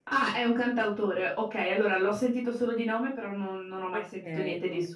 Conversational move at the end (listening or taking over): taking over